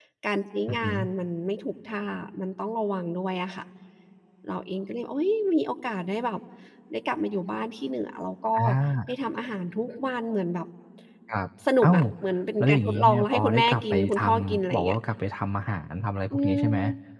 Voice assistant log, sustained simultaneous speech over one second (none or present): present